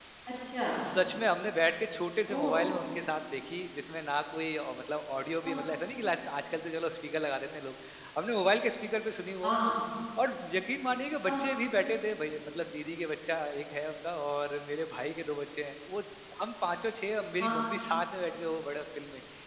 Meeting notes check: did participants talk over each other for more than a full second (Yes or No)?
No